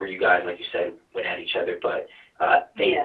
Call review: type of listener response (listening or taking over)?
taking over